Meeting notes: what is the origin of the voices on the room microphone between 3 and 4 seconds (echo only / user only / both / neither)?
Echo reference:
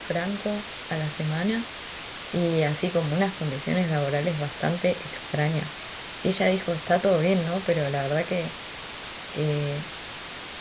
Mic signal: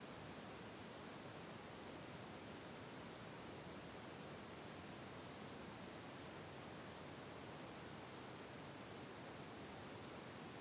neither